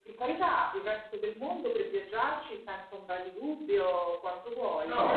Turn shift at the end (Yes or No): Yes